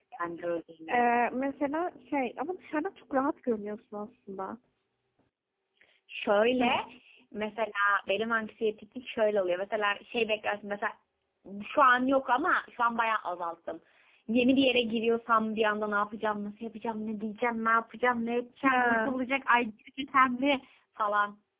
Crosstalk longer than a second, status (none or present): none